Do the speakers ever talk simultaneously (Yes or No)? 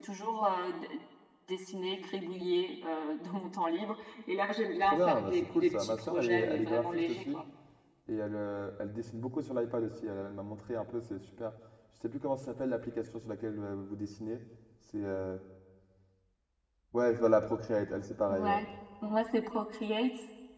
Yes